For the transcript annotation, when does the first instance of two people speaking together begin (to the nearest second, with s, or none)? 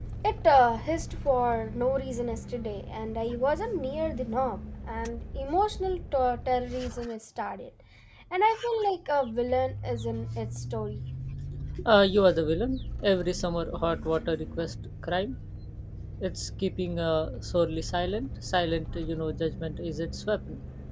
none